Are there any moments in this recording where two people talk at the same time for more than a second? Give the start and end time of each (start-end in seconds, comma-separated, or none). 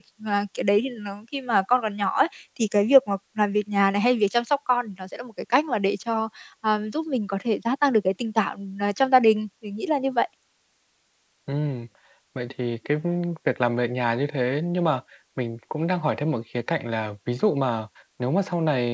none